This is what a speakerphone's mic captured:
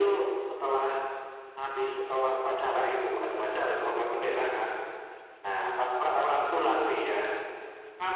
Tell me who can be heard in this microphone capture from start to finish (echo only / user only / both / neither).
echo only